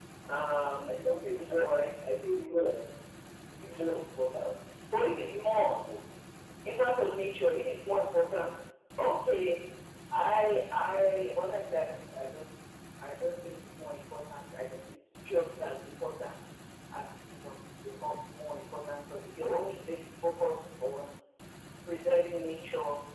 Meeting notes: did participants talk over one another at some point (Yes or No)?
Yes